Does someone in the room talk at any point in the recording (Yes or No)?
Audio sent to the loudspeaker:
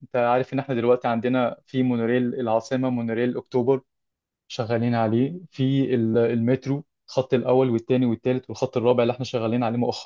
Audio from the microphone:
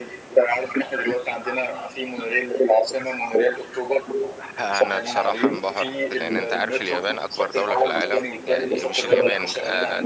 Yes